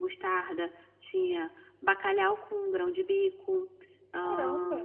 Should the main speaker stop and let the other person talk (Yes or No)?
Yes